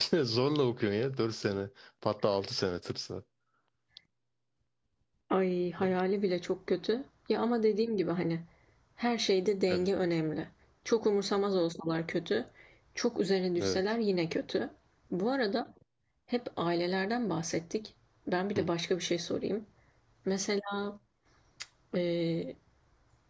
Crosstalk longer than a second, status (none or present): none